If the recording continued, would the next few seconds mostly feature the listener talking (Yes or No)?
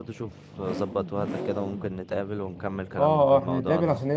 Yes